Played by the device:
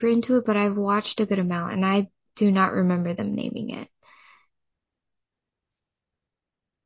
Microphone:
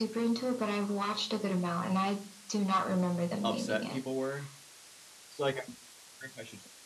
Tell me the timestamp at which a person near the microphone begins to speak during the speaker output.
3 s

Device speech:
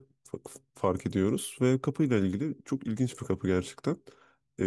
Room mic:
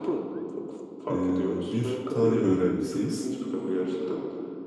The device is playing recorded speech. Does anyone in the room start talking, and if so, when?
1 s

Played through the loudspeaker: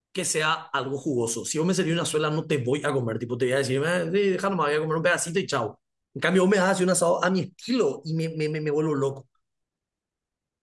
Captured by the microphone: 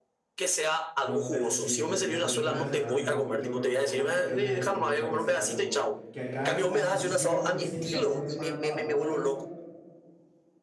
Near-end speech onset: 1 s

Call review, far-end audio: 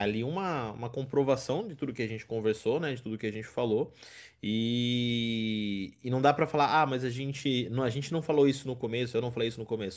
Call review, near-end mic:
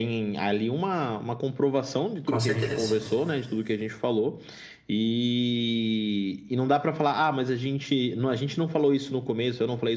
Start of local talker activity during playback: 2 s

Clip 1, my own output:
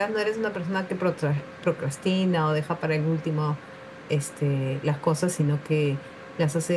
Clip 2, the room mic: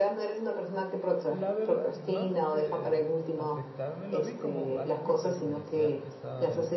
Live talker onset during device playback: 1 s

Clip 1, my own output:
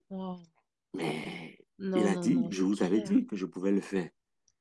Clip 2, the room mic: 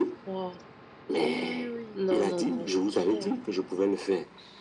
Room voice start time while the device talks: 1 s

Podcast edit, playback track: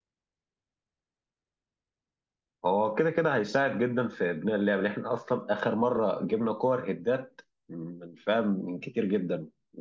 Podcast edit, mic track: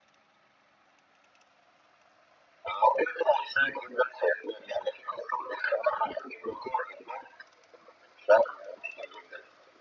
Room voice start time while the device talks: none

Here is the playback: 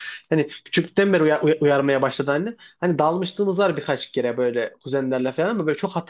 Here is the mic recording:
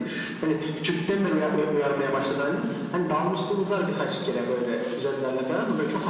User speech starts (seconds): none

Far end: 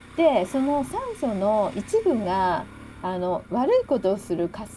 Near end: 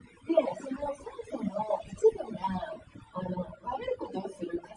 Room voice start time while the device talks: none

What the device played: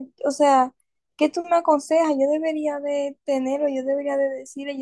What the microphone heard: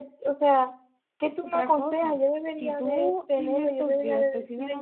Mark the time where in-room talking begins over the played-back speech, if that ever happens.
1 s

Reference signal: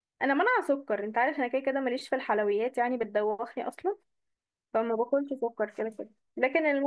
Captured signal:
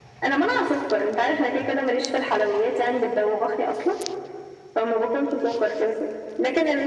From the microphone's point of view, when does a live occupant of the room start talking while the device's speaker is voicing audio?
none

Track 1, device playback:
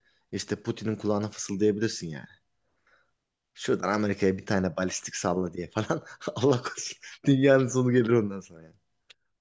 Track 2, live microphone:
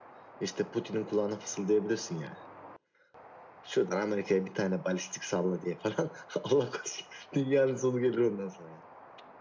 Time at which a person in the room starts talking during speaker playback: none

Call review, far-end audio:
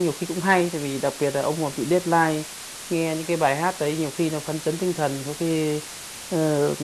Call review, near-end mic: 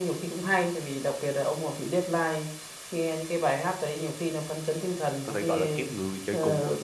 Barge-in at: 5 s

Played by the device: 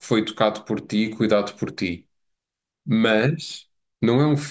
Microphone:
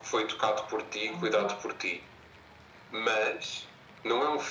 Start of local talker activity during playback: 1 s

